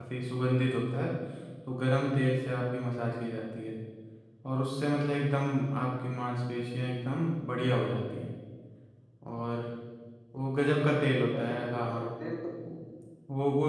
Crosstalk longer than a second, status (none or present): present